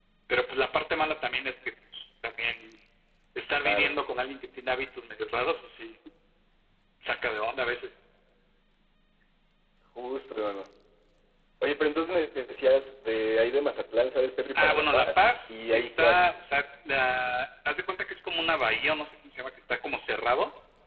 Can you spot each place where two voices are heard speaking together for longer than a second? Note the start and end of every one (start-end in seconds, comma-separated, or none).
14.6-16.3